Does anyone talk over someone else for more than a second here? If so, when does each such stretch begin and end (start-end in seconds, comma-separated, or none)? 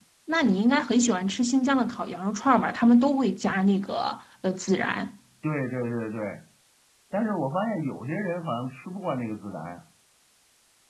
none